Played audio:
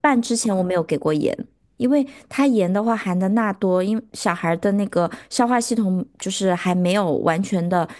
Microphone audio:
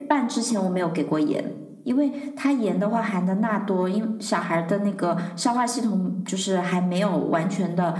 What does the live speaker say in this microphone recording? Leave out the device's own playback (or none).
none